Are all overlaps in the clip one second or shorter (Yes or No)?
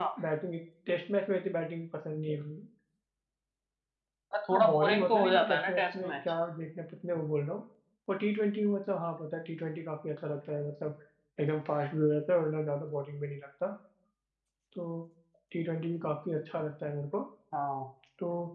No